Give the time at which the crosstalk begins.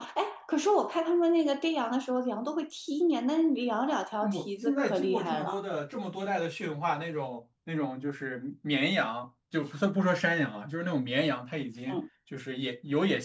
4.2 s

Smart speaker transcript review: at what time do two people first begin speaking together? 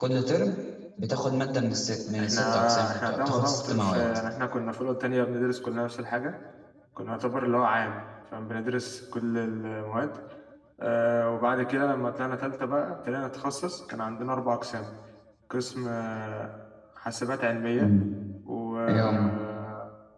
2.2 s

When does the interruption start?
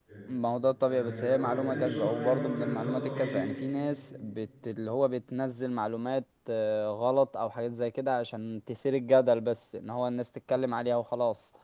0.8 s

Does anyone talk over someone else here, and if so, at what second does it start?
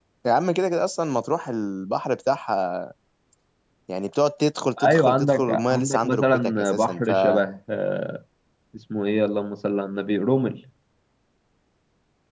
4.8 s

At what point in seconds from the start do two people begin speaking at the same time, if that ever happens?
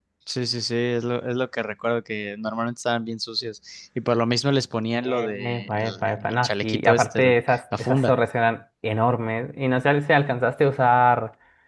5.0 s

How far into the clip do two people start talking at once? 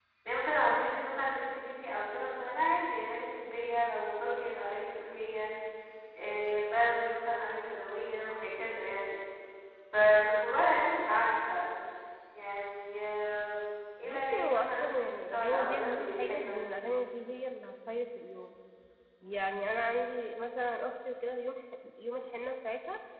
14.0 s

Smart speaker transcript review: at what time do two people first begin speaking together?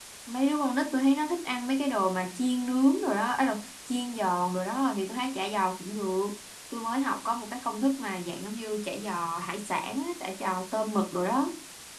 none

